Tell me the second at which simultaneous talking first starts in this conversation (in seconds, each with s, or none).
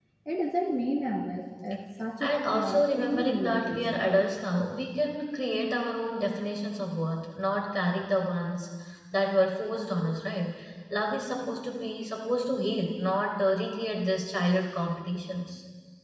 2.2 s